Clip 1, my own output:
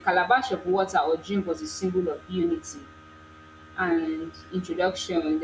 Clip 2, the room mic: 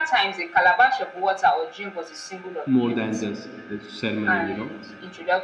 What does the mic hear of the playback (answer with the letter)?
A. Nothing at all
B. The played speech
B